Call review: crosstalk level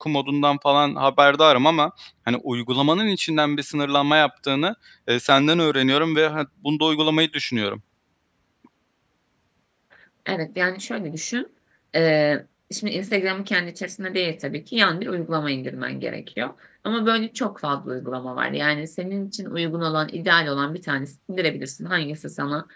none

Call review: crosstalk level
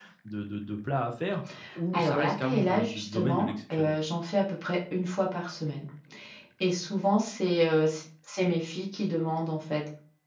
present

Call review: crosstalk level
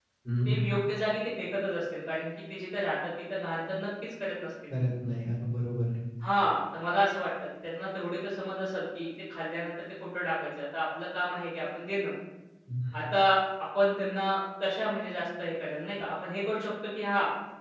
none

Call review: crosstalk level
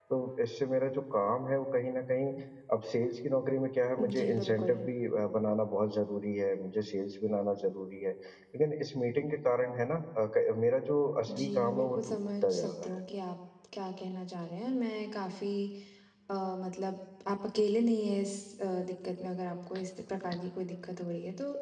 present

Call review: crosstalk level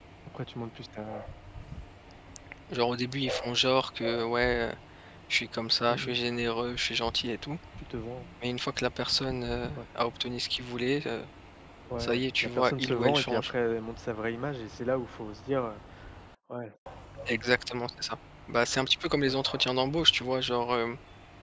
present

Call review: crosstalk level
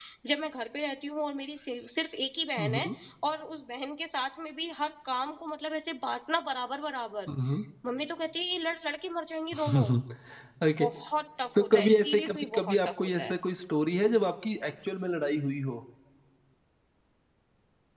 present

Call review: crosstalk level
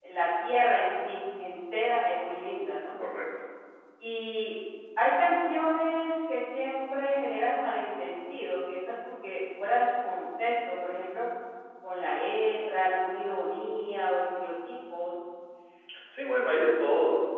none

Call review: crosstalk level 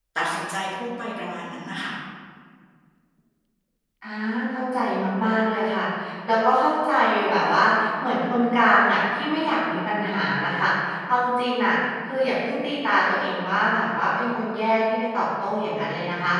none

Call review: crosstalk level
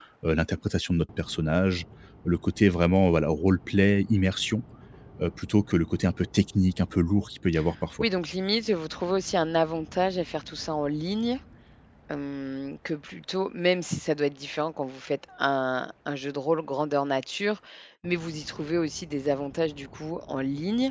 none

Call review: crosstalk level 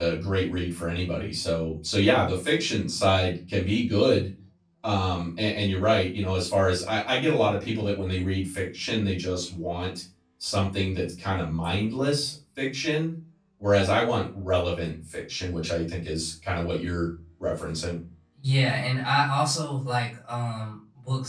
none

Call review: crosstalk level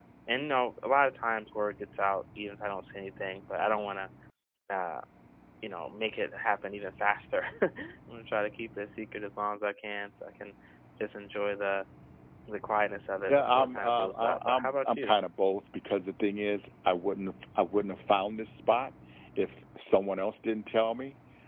present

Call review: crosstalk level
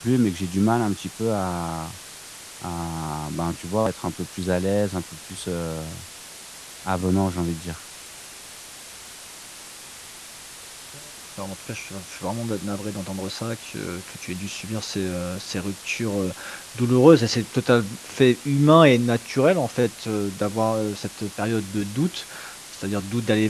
none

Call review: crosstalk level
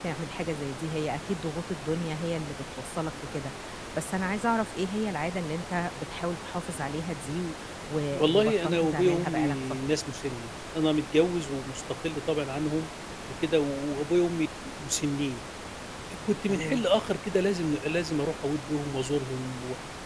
present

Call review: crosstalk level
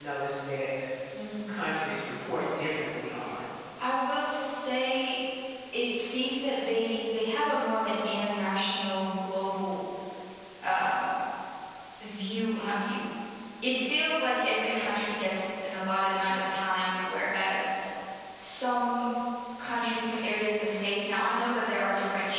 none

